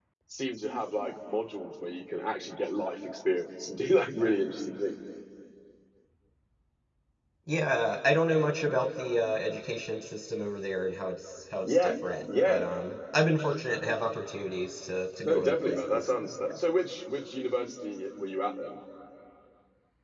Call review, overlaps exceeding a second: present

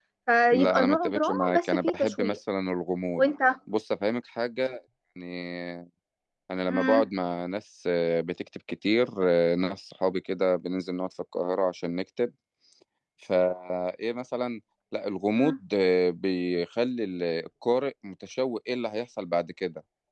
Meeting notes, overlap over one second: present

